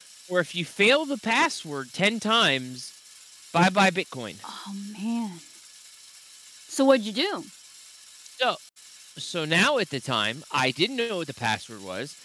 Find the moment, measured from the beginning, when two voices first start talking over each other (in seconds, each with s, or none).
none